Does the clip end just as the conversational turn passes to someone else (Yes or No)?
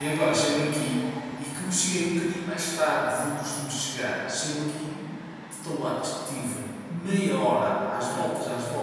No